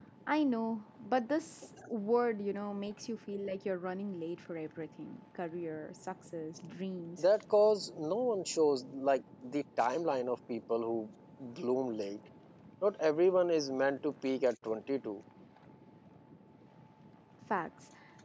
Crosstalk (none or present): none